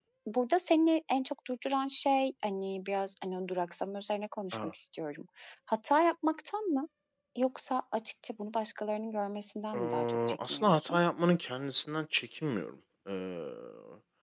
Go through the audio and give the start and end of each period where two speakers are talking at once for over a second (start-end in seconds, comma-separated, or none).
9.7-11.0